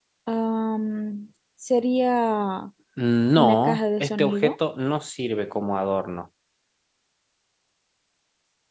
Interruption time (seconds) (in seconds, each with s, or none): 3.3 s